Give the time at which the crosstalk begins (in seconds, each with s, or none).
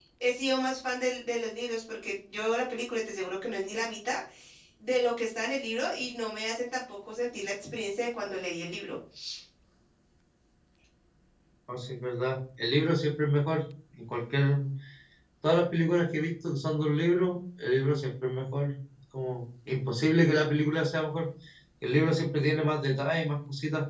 none